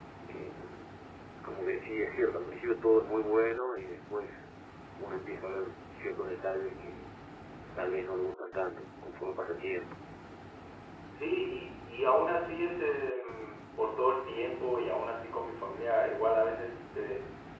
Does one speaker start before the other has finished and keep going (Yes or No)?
No